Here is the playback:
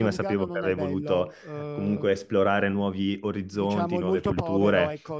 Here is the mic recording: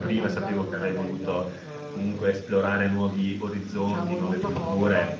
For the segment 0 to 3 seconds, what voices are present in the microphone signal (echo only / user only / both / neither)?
echo only